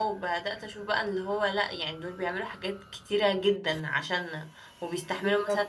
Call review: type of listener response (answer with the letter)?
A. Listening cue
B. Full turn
A